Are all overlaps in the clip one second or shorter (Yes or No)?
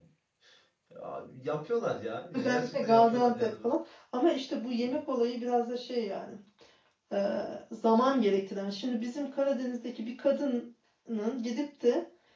No